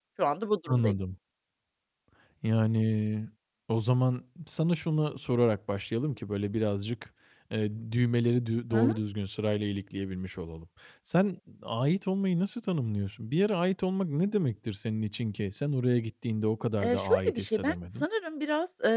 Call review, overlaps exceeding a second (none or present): present